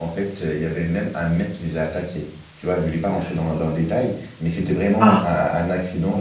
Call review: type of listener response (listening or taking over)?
listening